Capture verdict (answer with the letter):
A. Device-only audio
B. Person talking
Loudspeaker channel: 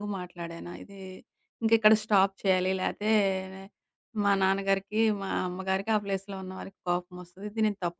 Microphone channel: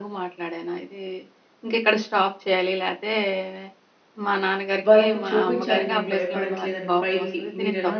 B